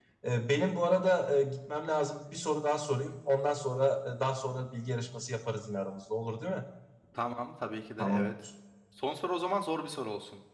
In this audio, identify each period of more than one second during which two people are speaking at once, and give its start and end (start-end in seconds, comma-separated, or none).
none